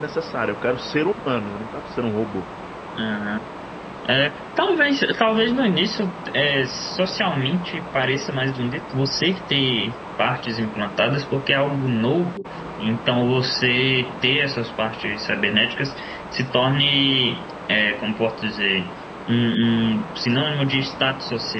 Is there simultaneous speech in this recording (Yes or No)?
No